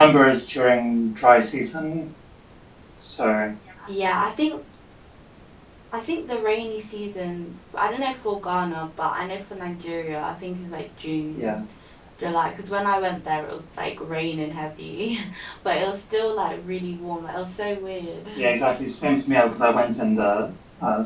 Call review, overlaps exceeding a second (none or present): none